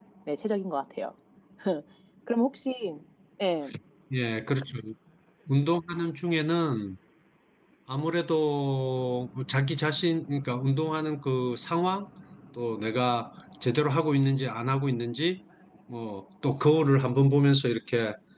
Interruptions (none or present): none